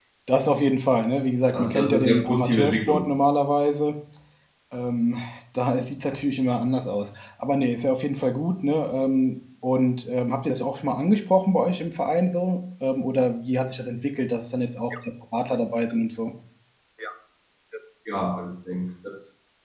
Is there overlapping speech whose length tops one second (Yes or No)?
Yes